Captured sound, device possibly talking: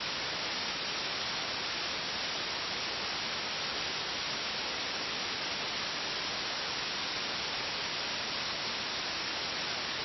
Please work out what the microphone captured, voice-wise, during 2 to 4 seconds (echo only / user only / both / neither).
neither